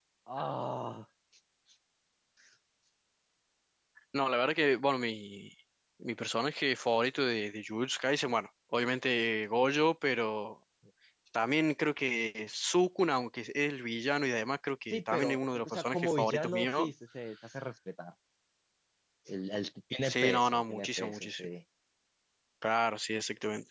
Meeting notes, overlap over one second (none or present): present